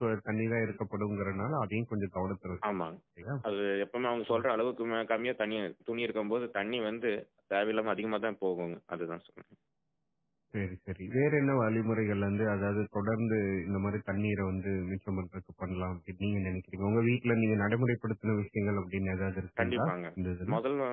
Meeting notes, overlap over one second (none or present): none